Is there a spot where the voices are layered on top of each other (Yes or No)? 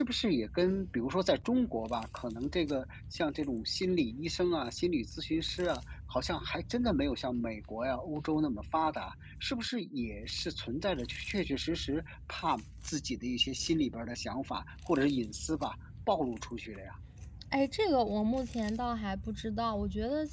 No